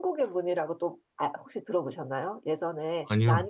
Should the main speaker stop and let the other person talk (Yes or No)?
No